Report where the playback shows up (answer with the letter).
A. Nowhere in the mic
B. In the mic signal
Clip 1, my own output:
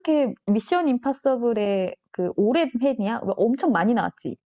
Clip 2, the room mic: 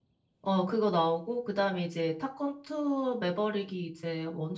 A